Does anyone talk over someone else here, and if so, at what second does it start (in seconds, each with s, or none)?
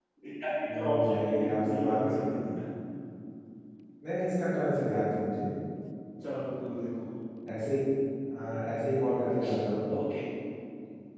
0.8 s